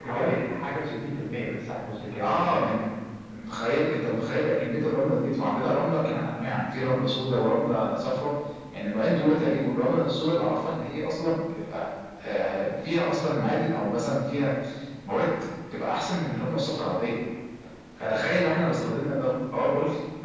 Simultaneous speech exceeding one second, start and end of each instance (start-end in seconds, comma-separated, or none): none